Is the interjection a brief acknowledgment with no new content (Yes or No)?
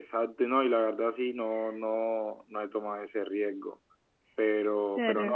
Yes